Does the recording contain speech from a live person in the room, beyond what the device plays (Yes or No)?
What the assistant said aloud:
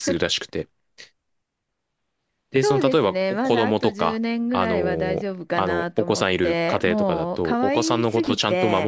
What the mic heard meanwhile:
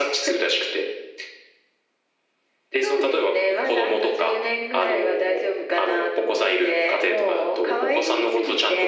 No